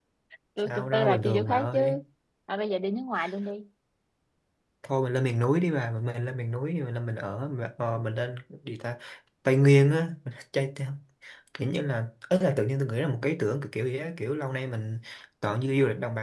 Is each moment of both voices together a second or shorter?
No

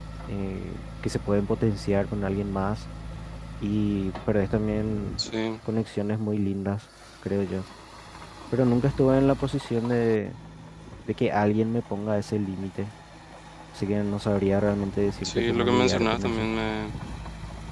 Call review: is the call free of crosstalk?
No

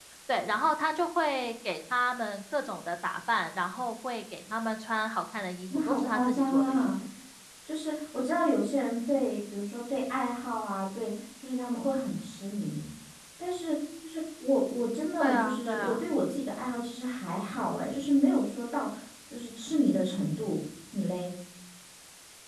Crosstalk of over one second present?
Yes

